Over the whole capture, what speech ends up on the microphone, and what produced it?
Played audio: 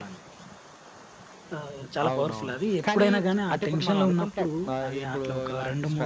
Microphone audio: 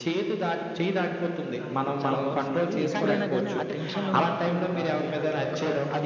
both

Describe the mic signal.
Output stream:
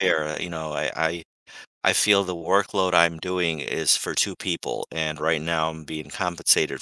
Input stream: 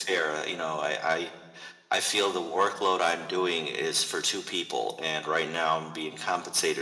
echo only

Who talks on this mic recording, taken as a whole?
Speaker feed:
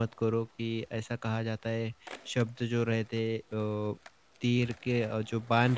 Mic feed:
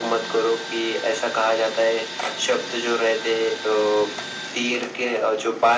echo only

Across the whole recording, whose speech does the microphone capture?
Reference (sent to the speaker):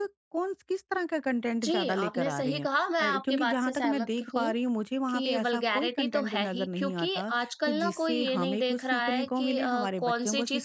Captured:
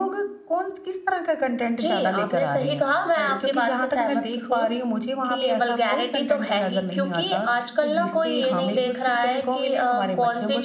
echo only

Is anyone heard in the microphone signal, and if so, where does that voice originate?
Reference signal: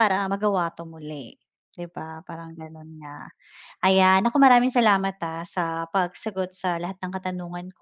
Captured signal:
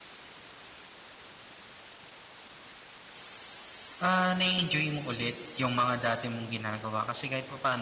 user only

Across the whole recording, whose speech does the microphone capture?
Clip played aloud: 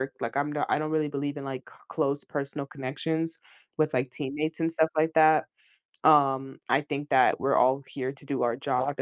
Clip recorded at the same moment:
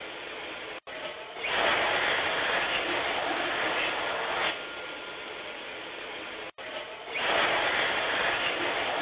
neither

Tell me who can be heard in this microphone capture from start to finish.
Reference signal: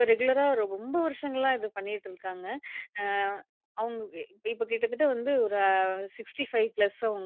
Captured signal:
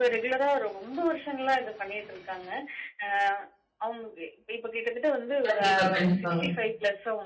both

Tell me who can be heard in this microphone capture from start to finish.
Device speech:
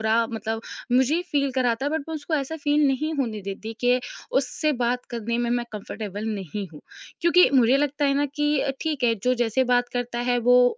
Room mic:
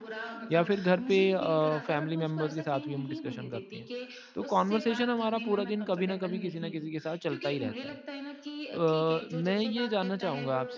both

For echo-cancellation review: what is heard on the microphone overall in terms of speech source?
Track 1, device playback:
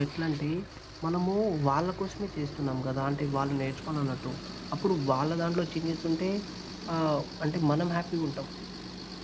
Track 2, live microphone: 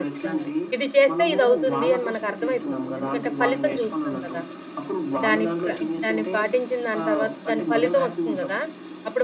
both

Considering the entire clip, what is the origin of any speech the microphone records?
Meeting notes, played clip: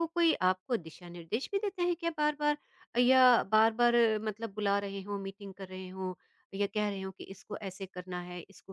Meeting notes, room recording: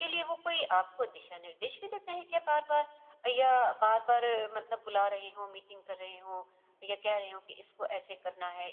echo only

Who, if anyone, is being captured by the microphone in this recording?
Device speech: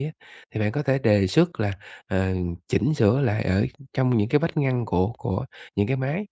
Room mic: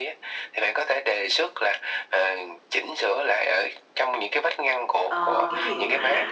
both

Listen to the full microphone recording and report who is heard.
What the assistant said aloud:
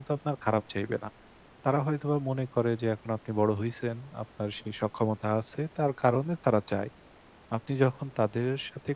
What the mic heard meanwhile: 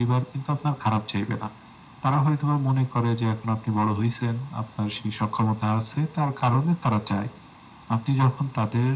echo only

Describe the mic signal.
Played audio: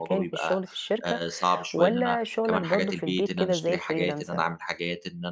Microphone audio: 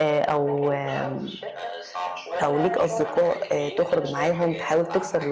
both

